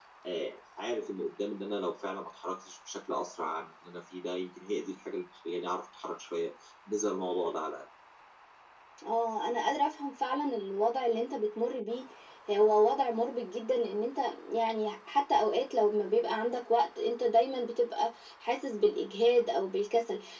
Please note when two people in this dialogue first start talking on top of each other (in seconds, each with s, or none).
none